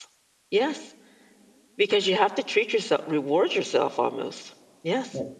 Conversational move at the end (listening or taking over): taking over